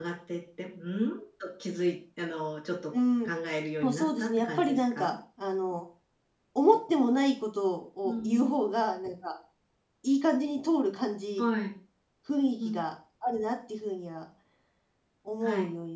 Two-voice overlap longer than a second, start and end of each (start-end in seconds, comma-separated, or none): 3.8-5.1